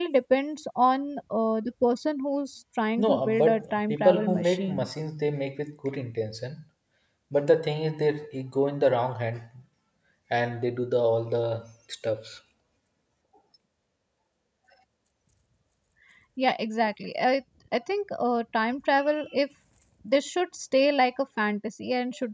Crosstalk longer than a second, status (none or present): present